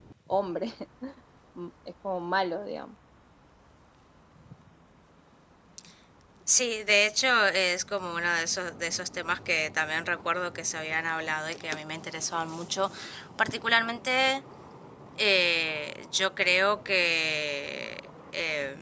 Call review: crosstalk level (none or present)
none